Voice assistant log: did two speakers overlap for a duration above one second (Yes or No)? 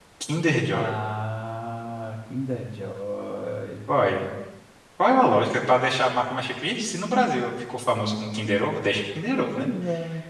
No